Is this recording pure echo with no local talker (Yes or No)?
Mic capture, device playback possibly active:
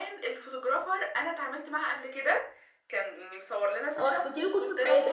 No